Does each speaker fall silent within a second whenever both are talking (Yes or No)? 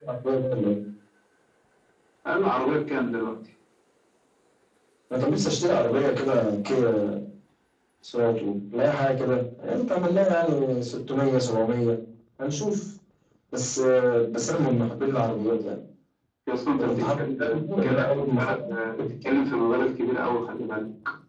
No